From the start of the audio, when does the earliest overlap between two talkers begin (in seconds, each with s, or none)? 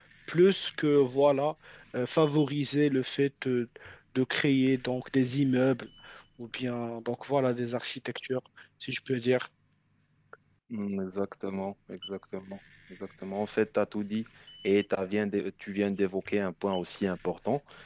none